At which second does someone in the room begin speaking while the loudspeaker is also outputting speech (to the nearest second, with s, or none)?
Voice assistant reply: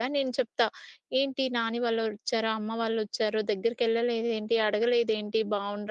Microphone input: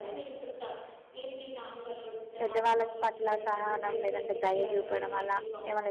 2 s